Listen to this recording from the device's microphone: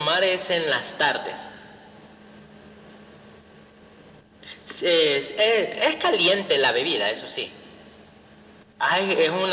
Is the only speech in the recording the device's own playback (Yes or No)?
Yes